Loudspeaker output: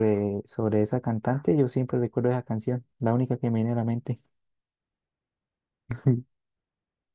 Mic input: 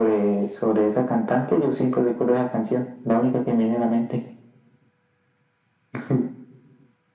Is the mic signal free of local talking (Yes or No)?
Yes